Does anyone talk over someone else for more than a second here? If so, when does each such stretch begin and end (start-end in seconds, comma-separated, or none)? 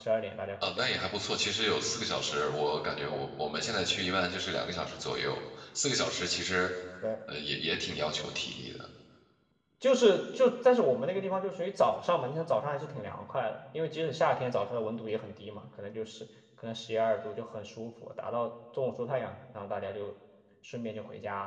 none